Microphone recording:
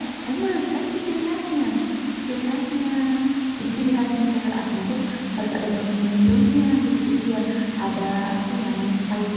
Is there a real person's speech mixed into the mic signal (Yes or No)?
No